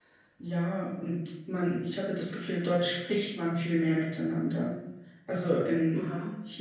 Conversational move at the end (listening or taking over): listening